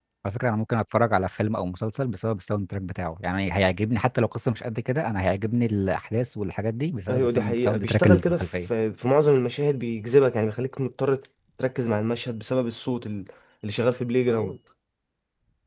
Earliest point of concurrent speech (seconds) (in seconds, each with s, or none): 7.1 s